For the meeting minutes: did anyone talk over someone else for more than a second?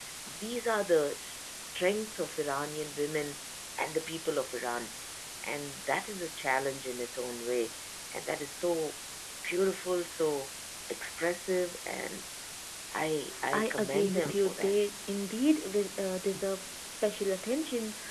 Yes, from 13.5 s

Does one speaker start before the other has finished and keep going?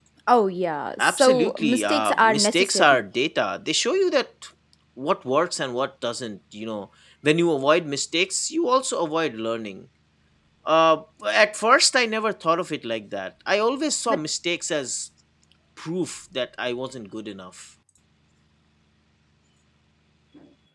Yes, from 1.0 s

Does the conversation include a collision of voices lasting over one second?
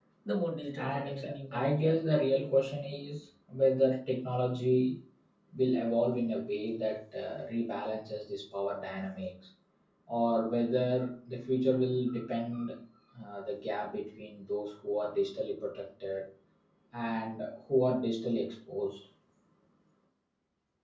Yes, from 0.8 s

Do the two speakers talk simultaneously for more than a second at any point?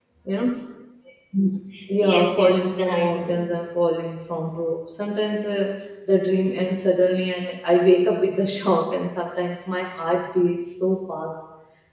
Yes, from 2.0 s

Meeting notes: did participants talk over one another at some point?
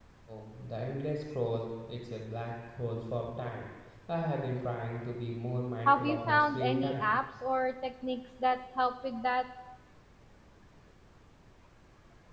Yes, from 5.9 s

